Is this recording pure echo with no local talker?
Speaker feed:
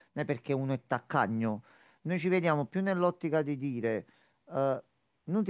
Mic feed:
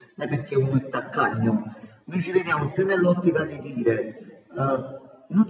Yes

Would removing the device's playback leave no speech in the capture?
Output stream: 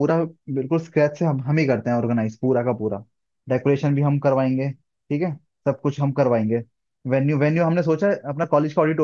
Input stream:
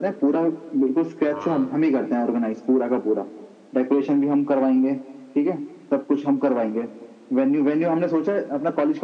No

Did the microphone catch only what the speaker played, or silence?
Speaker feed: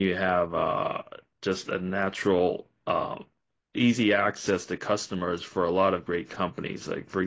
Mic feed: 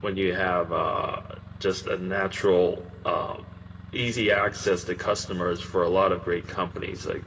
Yes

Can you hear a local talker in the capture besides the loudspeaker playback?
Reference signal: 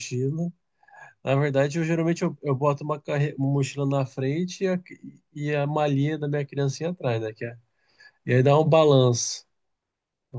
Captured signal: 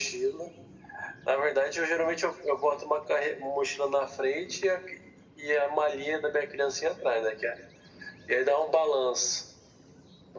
No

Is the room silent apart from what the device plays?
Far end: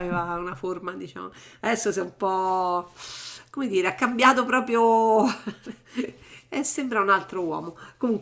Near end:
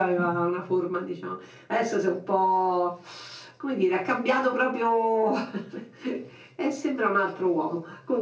Yes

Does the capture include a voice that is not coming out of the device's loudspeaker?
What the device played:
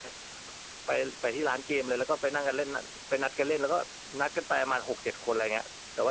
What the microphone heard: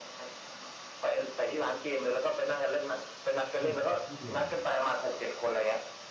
Yes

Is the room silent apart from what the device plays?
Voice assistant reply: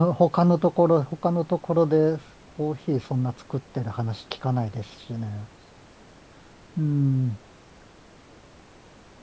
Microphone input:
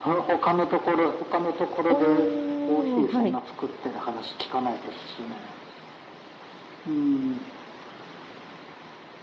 No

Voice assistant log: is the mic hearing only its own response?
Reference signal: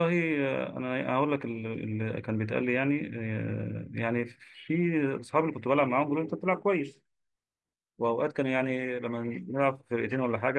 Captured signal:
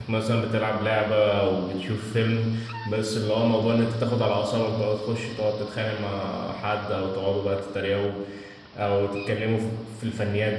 No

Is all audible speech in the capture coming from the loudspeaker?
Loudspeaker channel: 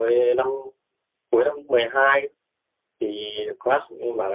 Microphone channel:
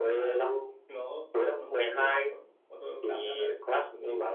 No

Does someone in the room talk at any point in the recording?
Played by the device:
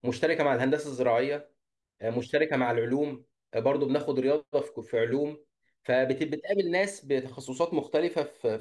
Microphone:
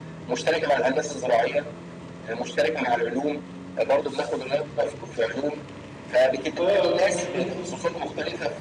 Yes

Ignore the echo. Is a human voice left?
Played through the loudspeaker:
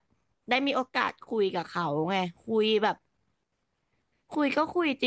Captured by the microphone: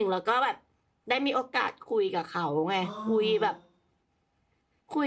Yes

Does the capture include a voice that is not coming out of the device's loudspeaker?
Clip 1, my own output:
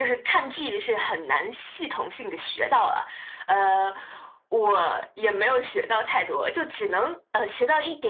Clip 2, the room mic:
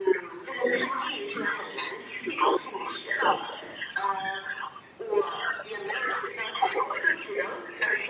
No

